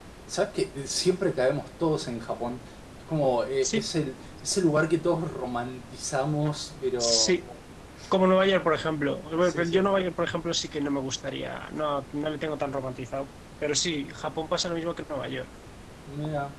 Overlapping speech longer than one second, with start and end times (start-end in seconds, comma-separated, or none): none